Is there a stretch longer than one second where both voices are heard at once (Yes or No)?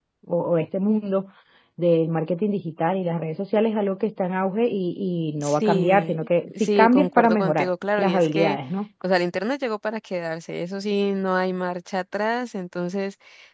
Yes